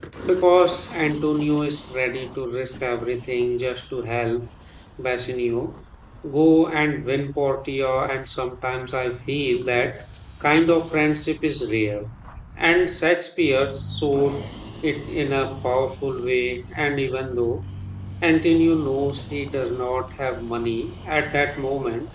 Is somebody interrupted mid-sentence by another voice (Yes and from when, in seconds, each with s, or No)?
No